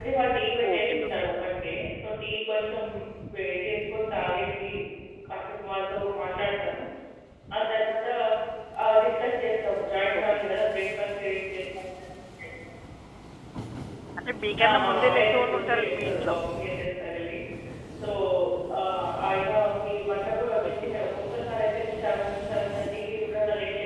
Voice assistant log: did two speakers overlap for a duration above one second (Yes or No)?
Yes